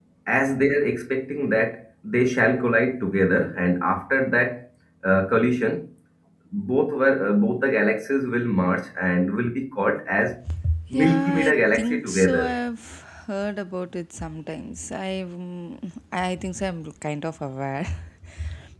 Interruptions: present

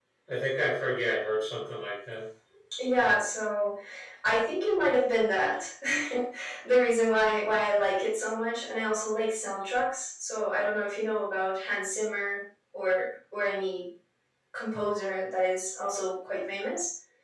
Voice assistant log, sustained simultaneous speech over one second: none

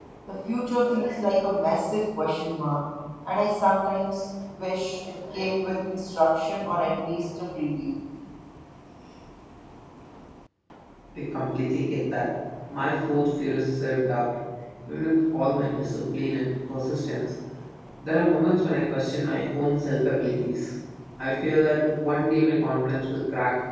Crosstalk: none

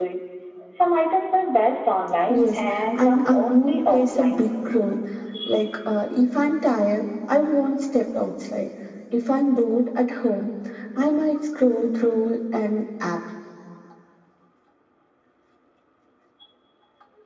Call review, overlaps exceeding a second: present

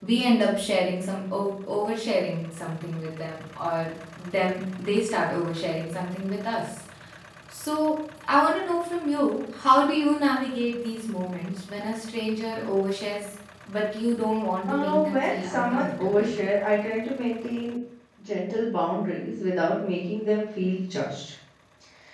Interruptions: present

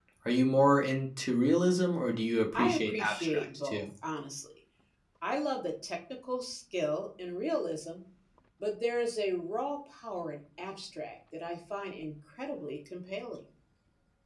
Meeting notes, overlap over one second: present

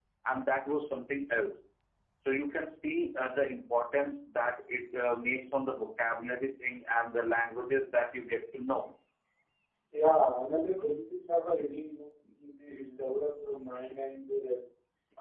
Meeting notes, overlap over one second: none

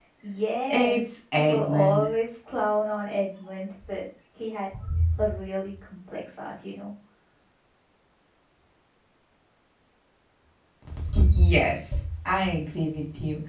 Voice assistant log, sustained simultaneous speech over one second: present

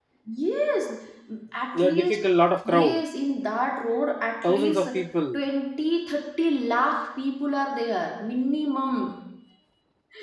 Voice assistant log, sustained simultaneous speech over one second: none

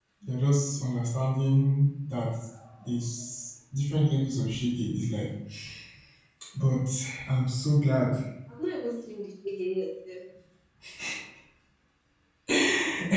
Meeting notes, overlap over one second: none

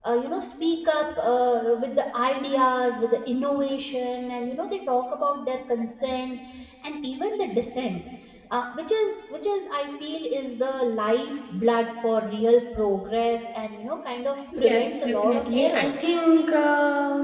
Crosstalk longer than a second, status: present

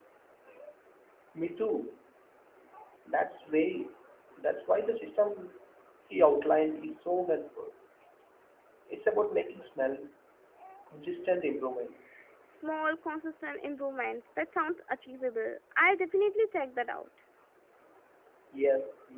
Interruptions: none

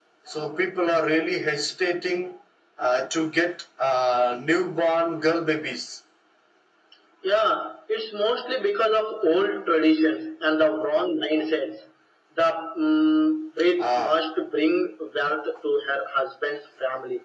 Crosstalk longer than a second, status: none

